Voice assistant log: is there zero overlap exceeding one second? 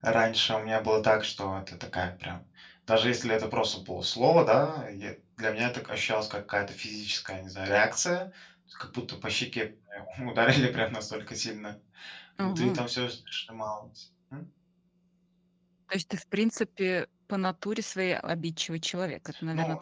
Yes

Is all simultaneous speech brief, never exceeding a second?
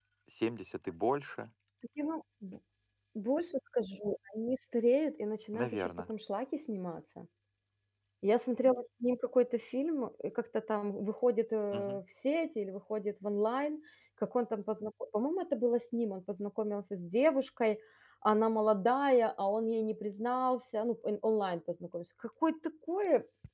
Yes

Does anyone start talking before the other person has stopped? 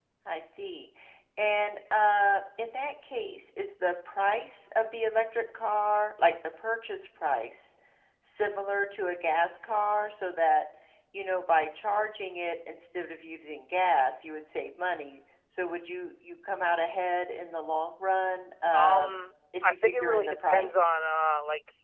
Yes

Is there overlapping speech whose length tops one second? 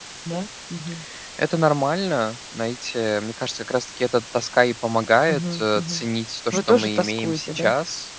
Yes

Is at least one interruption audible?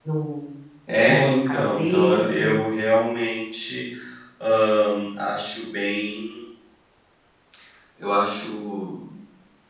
Yes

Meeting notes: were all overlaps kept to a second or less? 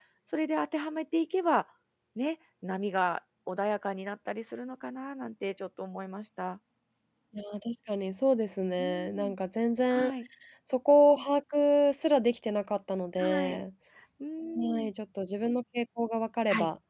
Yes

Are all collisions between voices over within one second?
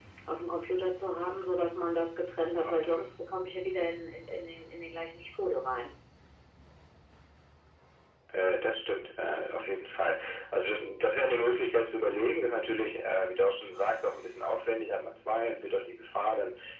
Yes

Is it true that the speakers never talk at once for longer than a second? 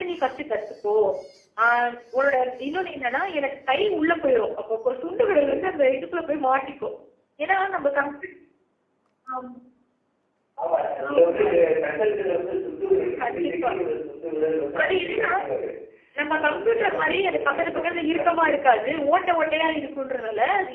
No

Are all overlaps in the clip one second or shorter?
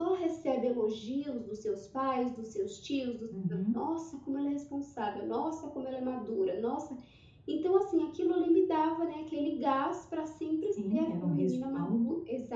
No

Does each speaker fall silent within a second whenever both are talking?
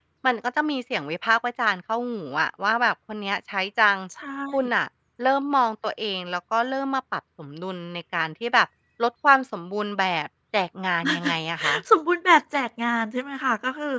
Yes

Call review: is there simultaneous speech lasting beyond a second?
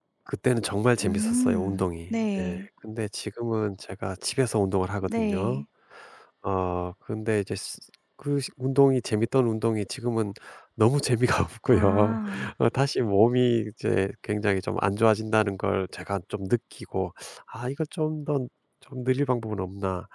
Yes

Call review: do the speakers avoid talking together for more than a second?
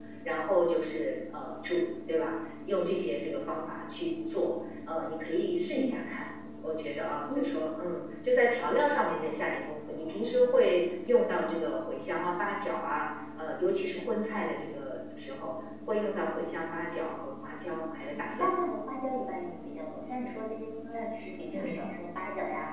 Yes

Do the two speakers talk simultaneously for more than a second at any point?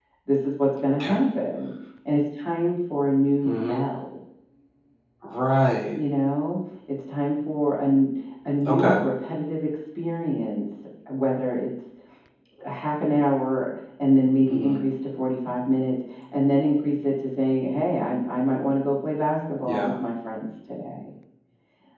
No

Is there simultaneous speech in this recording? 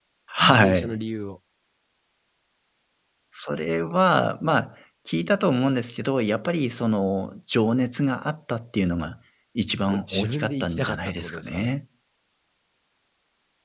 Yes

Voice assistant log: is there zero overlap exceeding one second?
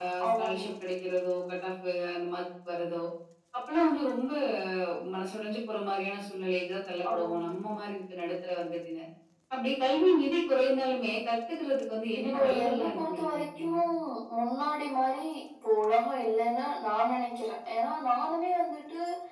No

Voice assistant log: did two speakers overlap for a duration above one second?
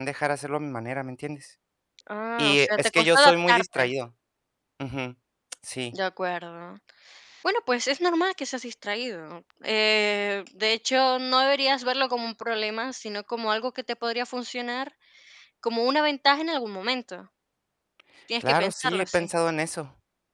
Yes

